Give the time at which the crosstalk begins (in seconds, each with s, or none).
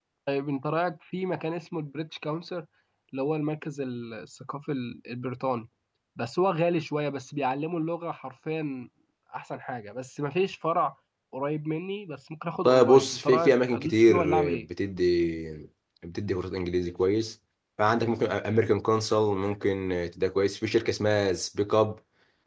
12.6 s